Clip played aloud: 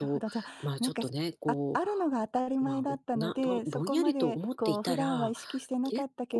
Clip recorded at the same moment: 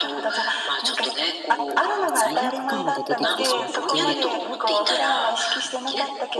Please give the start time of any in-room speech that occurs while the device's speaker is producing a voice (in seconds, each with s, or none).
1.7 s